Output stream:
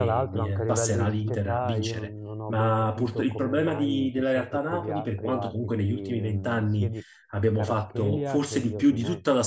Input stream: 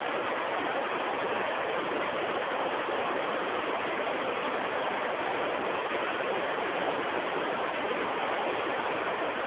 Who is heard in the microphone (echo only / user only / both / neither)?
neither